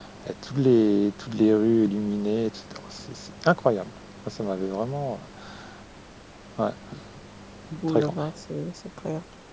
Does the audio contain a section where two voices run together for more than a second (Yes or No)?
No